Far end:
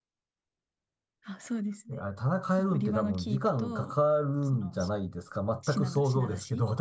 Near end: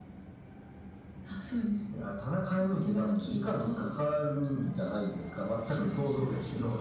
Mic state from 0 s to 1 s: neither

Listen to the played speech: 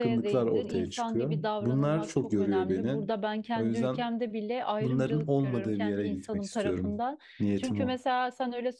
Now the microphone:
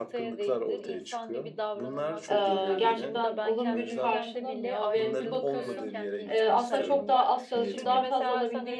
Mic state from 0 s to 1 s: echo only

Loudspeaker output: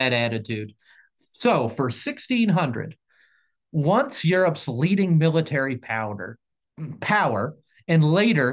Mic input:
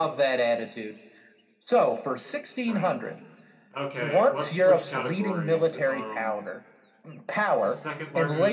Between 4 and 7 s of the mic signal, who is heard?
both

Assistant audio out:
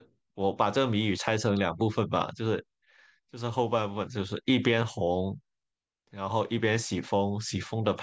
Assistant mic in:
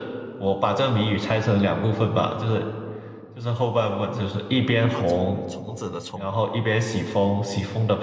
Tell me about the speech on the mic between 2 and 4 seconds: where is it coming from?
echo only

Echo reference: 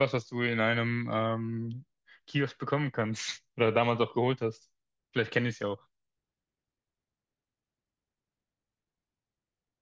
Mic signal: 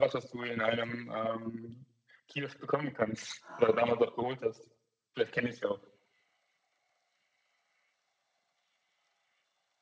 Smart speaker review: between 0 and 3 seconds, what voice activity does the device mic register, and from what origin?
echo only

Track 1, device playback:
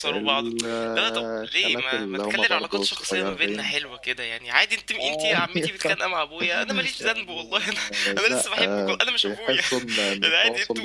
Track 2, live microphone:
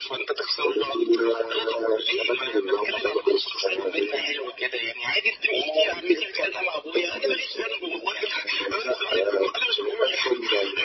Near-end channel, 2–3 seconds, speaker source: echo only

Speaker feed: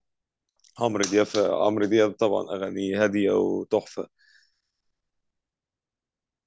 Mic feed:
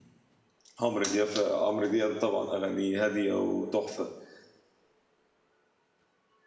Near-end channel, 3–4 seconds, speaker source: echo only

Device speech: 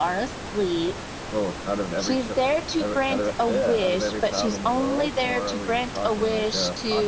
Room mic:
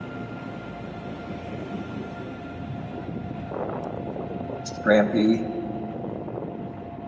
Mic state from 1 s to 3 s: neither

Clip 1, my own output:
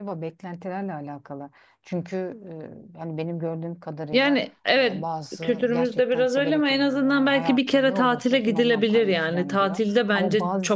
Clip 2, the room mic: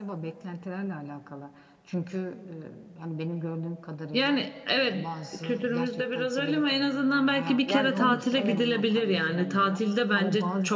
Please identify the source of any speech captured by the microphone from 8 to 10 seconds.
both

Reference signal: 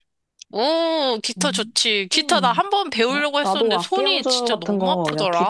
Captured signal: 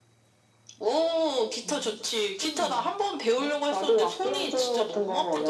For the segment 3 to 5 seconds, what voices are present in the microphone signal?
echo only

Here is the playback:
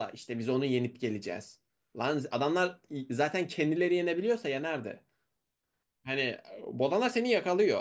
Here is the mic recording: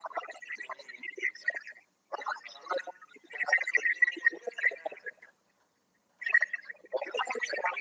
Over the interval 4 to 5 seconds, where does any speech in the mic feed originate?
echo only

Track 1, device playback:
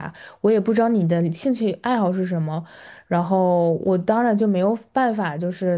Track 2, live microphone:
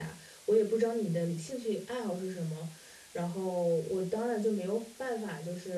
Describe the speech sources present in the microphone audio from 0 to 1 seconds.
echo only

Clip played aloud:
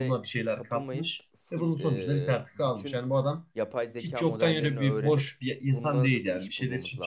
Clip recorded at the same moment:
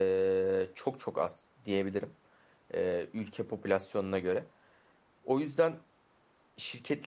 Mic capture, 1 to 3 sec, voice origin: user only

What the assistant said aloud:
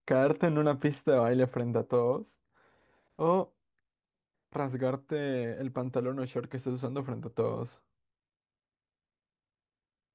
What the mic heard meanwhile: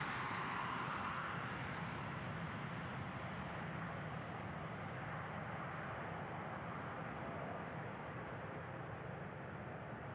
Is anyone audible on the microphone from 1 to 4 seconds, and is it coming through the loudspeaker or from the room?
neither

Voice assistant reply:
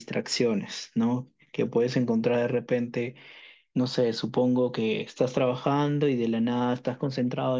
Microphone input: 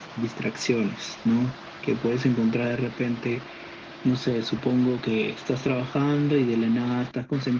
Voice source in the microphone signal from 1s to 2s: echo only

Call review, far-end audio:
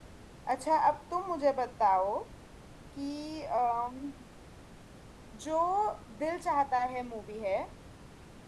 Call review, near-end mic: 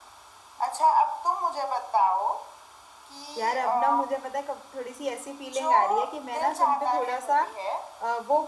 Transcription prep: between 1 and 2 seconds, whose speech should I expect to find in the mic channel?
echo only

